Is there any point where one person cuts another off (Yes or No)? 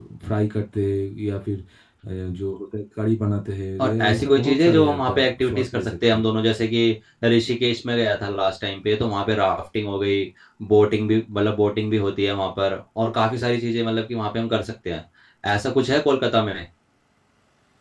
Yes